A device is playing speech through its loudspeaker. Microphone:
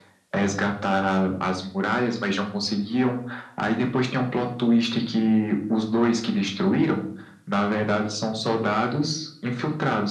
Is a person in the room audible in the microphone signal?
No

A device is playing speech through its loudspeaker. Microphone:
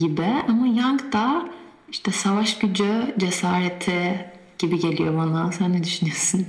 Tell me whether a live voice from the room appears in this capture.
No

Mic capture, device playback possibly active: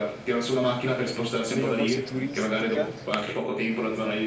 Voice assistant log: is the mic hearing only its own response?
No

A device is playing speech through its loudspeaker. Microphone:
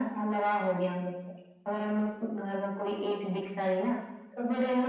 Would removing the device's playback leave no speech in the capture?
Yes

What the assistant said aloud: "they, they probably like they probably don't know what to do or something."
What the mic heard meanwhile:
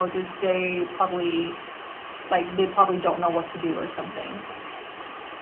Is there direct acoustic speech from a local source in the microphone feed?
No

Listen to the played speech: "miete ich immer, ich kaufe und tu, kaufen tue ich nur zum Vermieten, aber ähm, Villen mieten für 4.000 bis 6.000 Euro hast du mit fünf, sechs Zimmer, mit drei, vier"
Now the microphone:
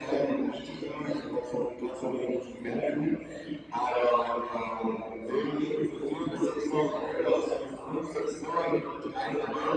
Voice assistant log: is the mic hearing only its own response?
Yes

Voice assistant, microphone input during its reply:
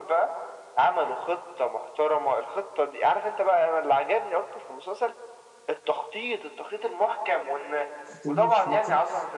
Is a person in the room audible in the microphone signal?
Yes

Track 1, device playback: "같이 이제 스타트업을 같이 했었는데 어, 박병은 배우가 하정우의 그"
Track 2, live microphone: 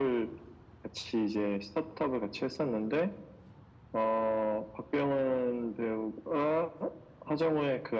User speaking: No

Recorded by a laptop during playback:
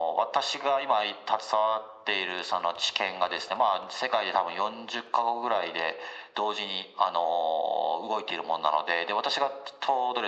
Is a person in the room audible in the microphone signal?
No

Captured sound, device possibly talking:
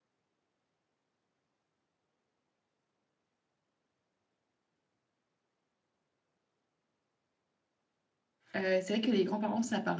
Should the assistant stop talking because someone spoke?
Yes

